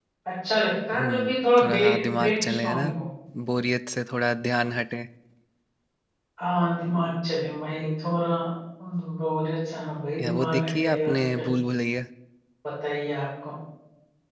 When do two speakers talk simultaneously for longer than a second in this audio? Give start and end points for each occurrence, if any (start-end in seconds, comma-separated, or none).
1.0-2.9, 10.2-11.5